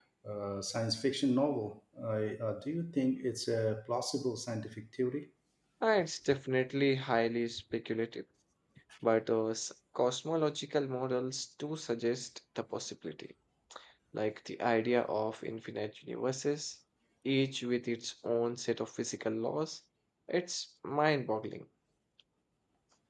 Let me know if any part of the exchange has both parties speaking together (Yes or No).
No